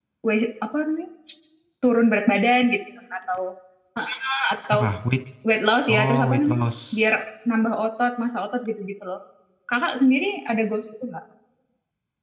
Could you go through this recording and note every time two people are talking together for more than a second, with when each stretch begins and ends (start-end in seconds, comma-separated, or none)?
5.9-7.1